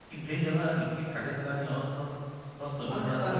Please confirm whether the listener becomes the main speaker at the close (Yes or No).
No